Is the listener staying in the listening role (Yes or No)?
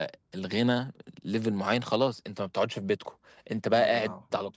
Yes